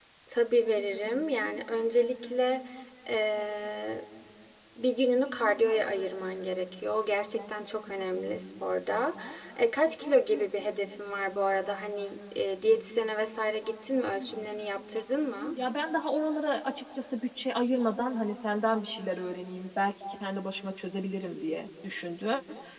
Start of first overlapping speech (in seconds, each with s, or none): none